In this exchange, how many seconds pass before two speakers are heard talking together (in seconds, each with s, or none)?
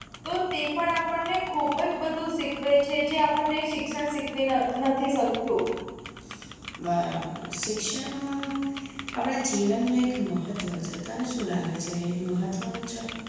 none